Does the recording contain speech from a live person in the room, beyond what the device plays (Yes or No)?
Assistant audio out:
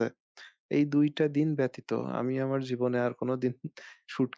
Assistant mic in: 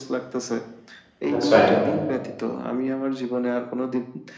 Yes